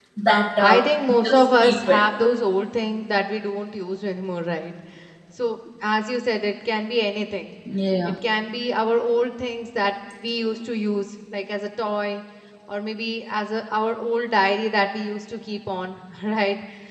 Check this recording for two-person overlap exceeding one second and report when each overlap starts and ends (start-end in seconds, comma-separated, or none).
0.6-2.0